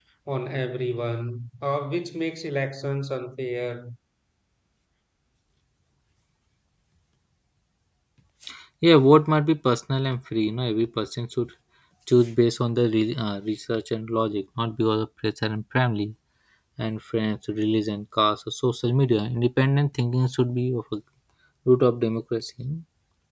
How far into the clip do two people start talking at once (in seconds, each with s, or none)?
none